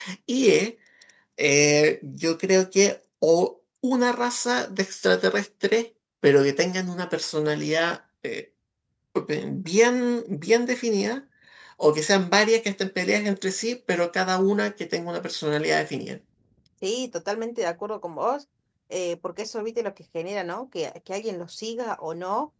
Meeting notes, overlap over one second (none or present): none